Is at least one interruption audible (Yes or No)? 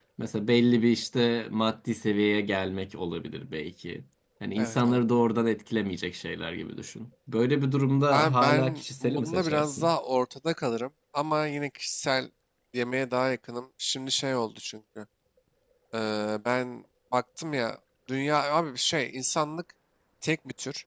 Yes